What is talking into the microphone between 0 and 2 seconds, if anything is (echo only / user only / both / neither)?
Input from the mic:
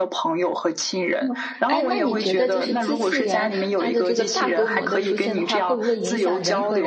both